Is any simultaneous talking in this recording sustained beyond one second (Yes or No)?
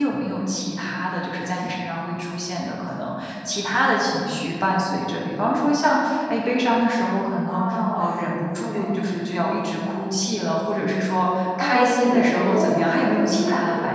Yes